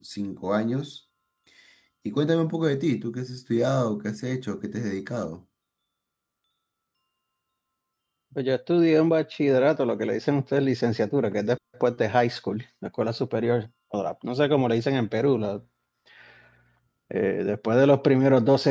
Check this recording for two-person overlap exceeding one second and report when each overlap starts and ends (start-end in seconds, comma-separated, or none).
none